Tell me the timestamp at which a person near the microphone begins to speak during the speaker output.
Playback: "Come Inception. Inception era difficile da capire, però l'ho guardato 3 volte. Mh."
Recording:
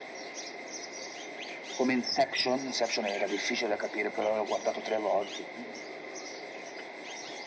none

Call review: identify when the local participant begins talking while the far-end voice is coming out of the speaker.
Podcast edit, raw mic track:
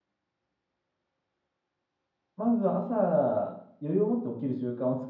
2.4 s

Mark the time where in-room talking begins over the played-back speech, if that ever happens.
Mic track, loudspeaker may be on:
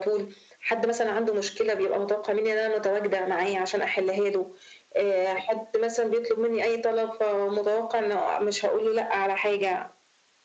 none

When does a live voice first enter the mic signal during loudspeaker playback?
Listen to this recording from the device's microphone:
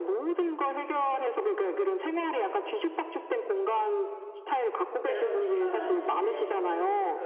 5.0 s

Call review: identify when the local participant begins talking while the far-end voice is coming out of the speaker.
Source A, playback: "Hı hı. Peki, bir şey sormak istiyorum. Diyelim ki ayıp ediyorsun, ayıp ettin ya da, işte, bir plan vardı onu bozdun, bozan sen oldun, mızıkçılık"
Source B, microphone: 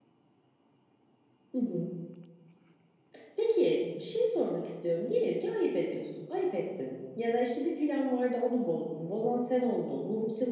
none

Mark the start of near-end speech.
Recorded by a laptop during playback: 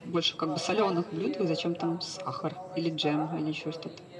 0.3 s

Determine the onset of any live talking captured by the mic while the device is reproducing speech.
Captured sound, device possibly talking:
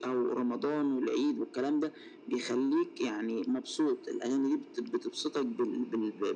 none

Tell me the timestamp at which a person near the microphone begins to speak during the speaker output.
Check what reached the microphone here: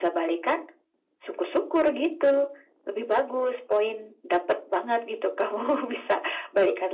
none

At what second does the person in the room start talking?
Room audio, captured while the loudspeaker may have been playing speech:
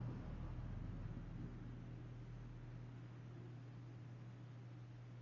none

